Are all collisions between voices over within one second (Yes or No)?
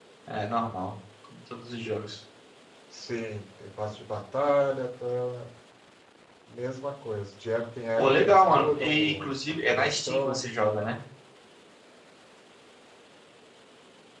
No